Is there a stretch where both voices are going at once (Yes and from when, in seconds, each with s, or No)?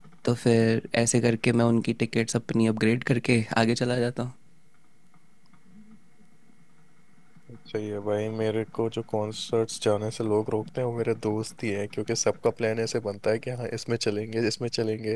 No